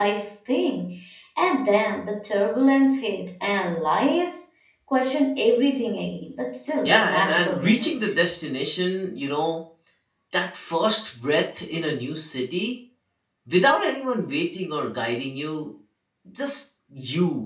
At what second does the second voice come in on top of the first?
6.8 s

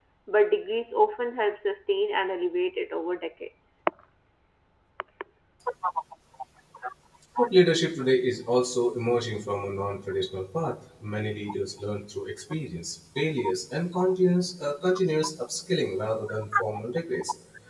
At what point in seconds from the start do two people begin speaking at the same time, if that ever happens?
none

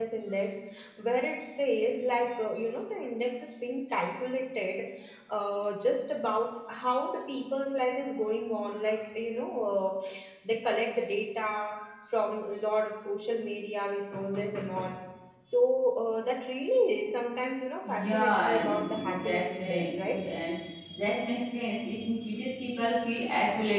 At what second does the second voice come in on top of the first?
17.8 s

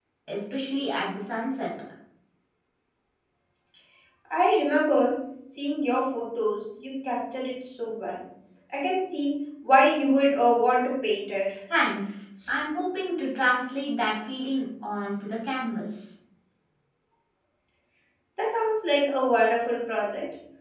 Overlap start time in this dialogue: none

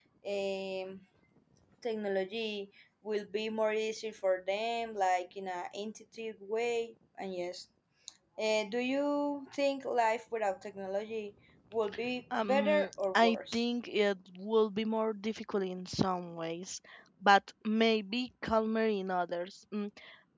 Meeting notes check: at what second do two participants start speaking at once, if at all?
12.4 s

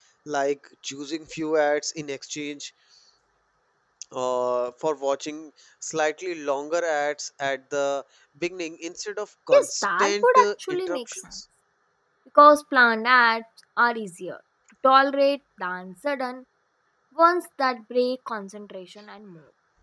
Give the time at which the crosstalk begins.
9.5 s

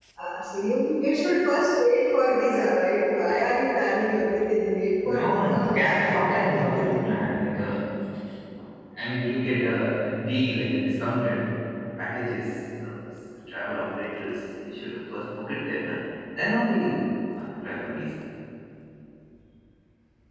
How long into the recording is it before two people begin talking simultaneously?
5.0 s

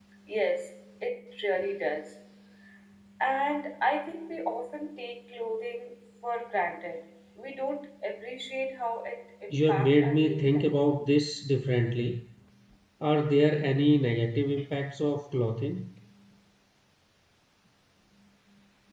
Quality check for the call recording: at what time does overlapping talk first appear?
9.5 s

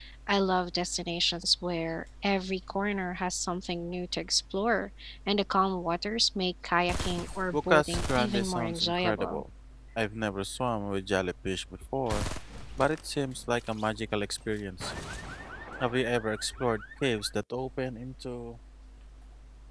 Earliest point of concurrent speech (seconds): 7.5 s

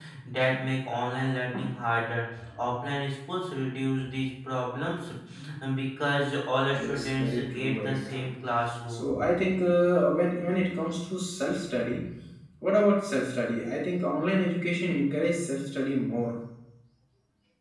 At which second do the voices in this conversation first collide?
6.7 s

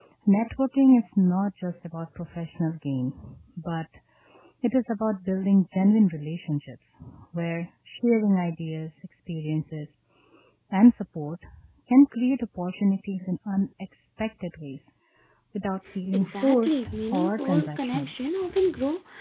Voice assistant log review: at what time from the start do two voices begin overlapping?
16.1 s

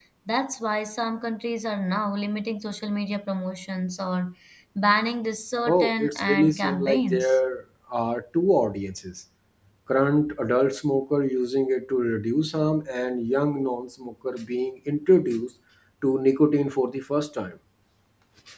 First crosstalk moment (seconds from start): 5.7 s

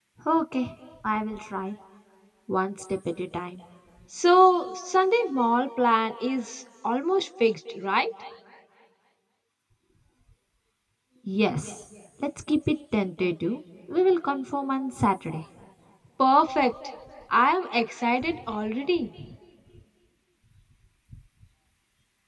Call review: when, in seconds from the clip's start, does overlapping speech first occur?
none

